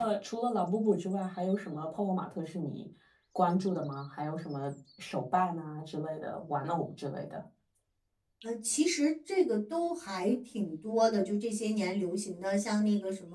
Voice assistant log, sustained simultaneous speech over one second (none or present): none